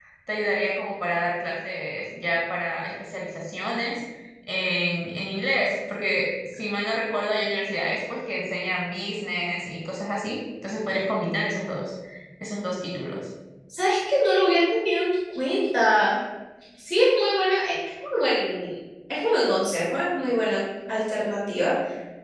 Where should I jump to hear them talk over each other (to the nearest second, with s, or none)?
none